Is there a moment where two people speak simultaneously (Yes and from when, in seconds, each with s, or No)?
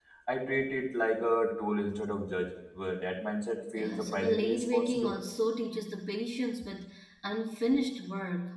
Yes, from 3.8 s